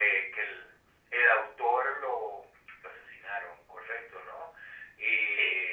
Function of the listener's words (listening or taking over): listening